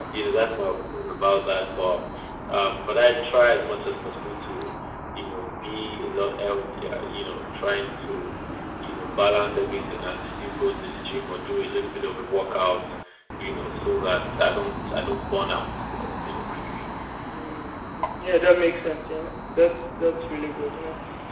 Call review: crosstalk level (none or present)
none